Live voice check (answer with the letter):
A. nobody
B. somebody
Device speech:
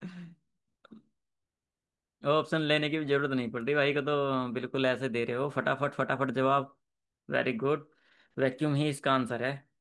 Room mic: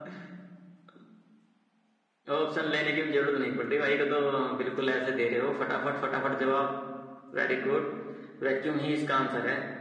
A